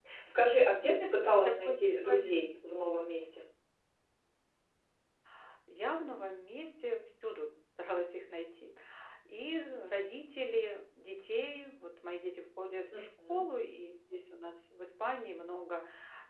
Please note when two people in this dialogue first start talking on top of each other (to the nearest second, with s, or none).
1 s